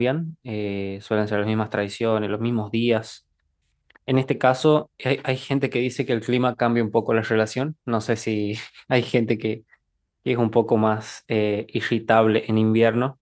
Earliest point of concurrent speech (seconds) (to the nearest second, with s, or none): none